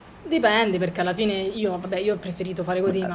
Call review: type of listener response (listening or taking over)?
listening